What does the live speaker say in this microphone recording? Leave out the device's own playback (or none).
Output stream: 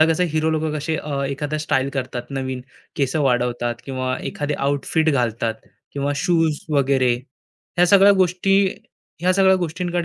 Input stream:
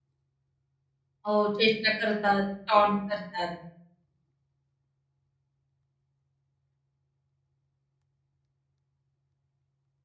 हो, चेष्टा करतात, टॉन्ट करतात.